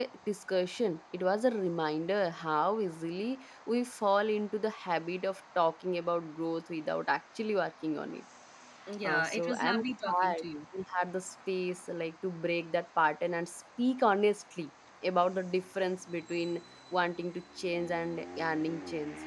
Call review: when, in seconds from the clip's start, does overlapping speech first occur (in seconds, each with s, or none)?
9.1 s